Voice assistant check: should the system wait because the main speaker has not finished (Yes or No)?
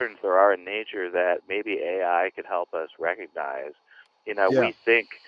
Yes